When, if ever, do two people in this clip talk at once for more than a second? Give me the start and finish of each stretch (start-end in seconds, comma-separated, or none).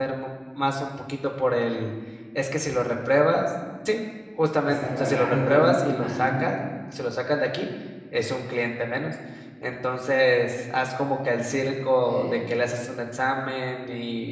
4.6-6.5